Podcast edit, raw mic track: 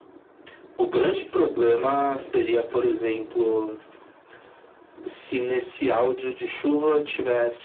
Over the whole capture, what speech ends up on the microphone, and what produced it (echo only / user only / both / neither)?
echo only